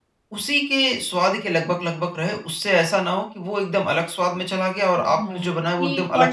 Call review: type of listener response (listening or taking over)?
taking over